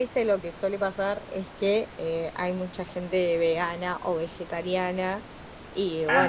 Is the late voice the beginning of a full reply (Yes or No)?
No